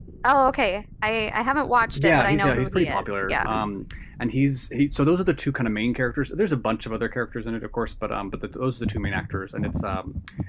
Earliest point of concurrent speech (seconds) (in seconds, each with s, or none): 2.0 s